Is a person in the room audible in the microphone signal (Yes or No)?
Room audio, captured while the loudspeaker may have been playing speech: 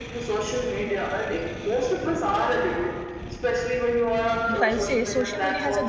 Yes